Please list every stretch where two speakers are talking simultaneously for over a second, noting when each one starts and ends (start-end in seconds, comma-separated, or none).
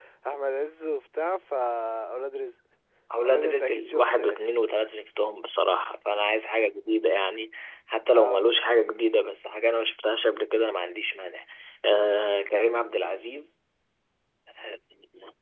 3.2-4.4